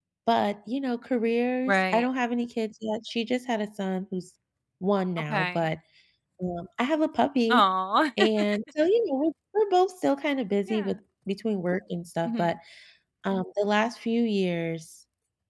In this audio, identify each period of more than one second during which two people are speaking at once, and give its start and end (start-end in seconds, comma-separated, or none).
none